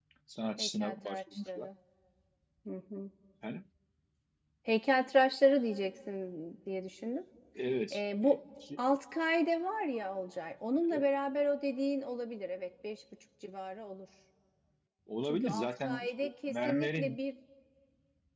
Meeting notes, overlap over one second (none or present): present